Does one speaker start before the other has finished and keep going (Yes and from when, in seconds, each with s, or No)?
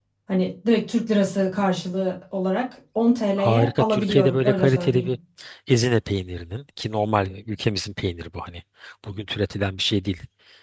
Yes, from 3.4 s